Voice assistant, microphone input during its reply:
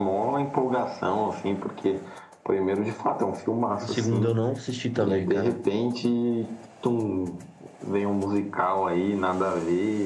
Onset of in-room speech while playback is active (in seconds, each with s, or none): 3.8 s